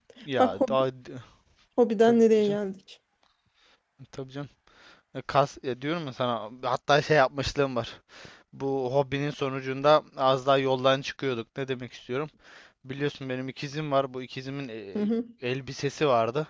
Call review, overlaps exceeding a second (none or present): none